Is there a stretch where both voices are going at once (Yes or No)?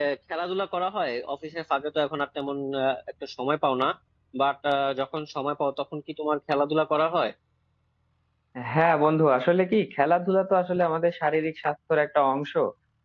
No